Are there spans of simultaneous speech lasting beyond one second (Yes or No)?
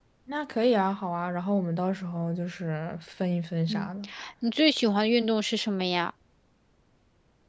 No